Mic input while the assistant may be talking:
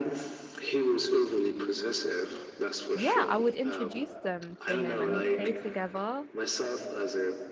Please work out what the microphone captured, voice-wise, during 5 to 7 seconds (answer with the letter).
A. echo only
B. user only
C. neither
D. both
D